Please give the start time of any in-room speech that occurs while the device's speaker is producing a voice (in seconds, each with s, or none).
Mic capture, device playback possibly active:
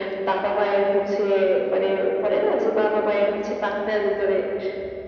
none